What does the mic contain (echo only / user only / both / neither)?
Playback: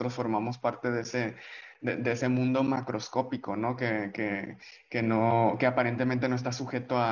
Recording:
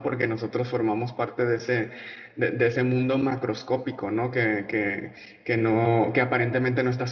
echo only